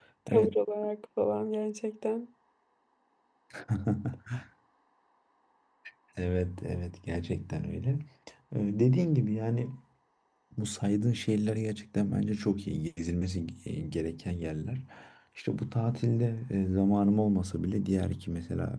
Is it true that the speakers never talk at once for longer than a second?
Yes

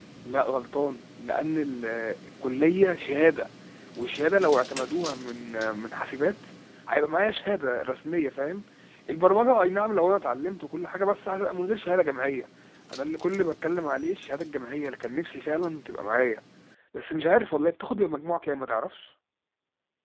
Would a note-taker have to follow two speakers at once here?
No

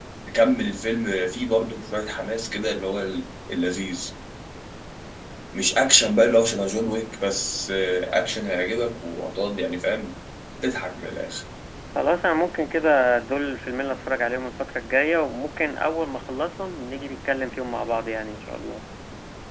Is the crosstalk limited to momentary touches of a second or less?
Yes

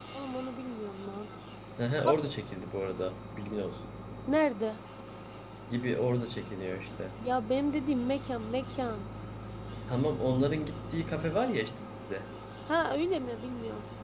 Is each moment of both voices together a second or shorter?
Yes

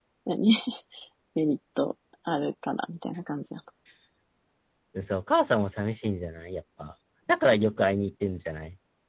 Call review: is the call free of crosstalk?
Yes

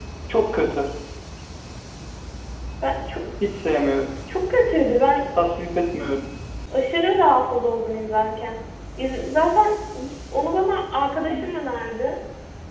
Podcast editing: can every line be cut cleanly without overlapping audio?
Yes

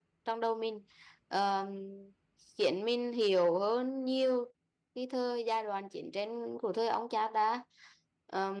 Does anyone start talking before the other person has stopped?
No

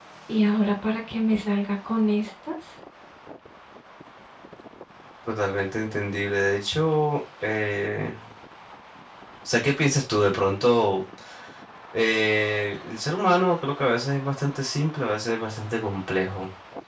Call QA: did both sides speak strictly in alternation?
Yes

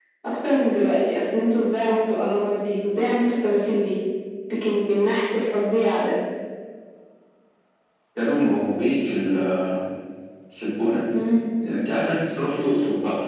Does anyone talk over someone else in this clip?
No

